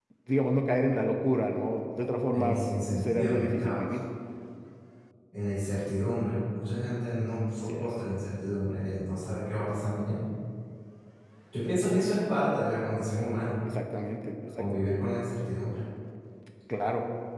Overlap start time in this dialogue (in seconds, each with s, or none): 2.3 s